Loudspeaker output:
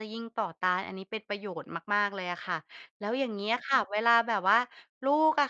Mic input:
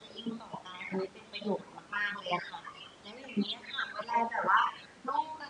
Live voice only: none

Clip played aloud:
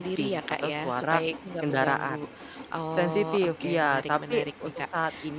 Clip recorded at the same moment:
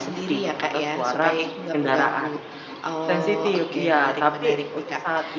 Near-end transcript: none

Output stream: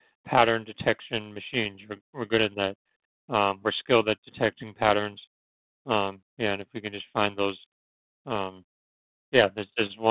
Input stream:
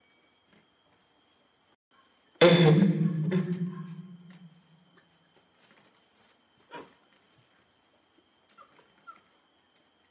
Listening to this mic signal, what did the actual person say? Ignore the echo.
Mhm. Mhm.

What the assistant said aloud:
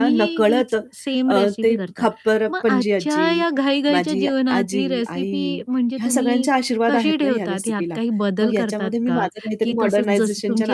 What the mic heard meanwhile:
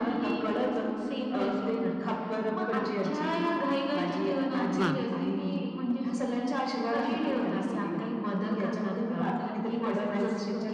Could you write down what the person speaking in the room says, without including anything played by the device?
वाह!

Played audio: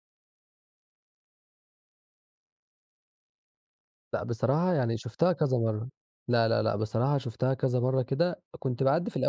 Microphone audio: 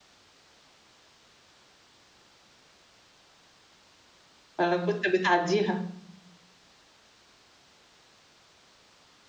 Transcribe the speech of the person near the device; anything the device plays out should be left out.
والّا كنت بتعدّيها؟

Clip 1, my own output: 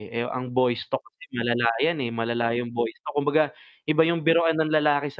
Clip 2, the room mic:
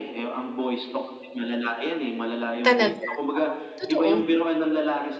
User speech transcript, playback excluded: Talaga, oo, totoo.

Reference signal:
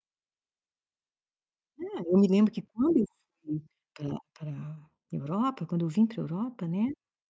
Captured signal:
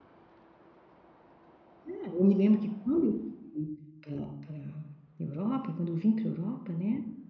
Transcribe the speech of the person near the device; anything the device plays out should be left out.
none

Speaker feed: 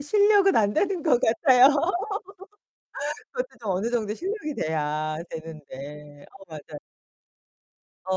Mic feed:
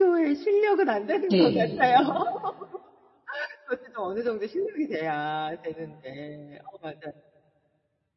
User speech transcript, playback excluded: 네.

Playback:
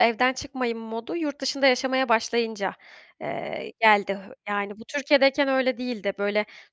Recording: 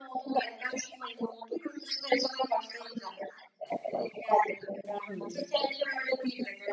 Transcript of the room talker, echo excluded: Hımm.

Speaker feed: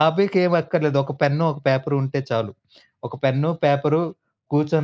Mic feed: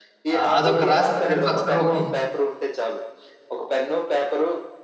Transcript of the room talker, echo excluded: ఆహ్, అదొక రాసి దాని అక్షర రూపం

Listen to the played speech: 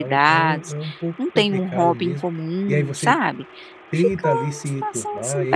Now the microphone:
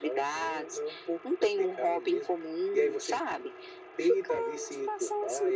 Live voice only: none

